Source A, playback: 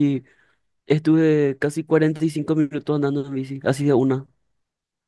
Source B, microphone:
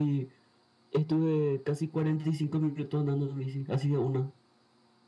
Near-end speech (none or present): none